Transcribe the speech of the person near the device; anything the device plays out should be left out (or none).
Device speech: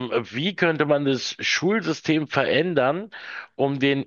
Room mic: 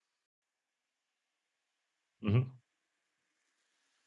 Mhm.